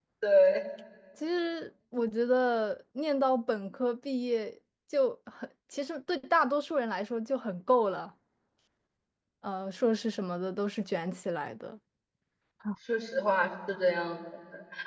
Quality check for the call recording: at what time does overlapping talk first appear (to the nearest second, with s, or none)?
none